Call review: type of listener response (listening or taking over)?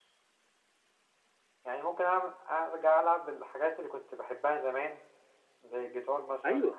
taking over